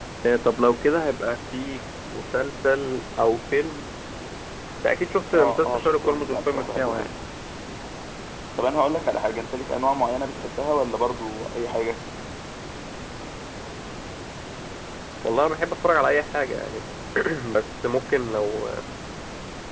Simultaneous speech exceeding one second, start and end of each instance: 5.3-7.1

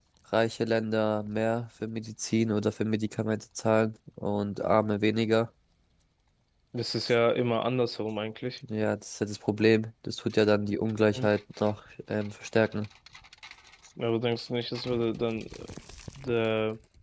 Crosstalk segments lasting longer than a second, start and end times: none

